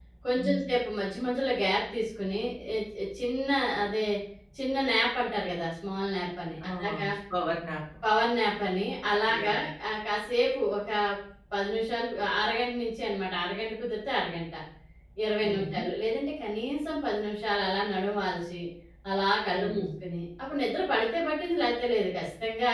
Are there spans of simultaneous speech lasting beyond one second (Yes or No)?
No